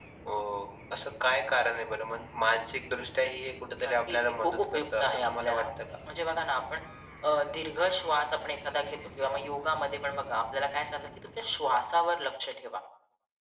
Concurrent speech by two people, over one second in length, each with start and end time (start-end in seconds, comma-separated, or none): 3.9-5.7